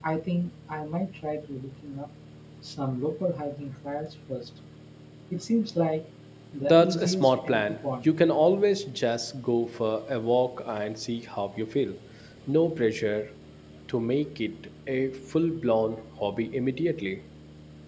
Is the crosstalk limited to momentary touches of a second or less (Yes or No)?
No